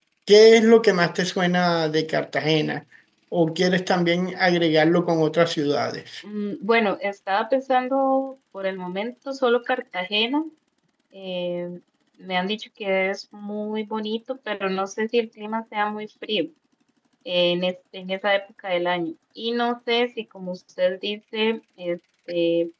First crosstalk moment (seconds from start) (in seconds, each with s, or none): none